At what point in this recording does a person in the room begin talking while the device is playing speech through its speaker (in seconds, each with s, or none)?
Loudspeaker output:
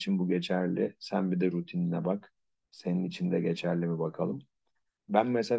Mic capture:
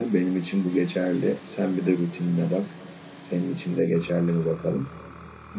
none